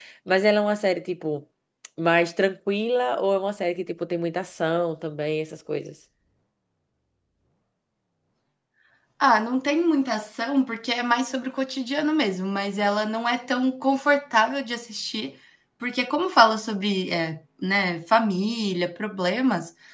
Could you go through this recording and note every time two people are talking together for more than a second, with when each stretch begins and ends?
none

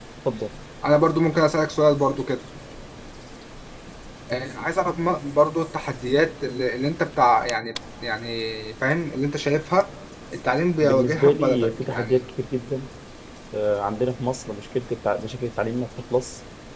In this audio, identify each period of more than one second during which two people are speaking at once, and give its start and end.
10.8-12.3

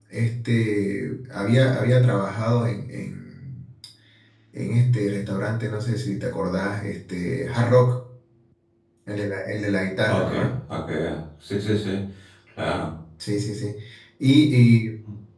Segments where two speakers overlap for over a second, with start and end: none

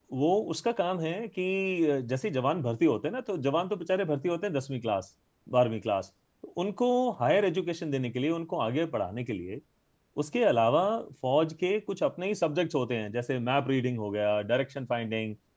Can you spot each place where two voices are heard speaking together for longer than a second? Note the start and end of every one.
none

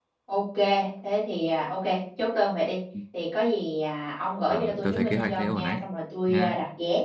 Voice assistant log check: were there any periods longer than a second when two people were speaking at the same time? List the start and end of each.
4.5-5.8

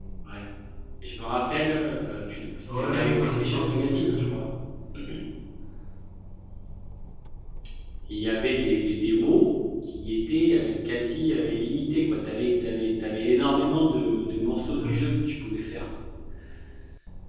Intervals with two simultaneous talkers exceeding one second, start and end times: 2.6-4.4

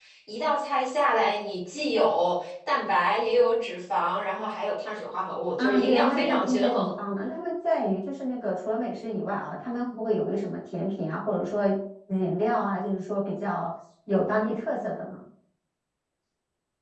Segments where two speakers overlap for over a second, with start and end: 5.6-6.9

